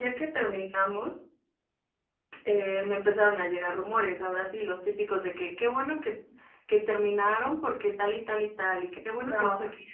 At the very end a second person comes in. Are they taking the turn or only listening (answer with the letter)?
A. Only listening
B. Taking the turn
A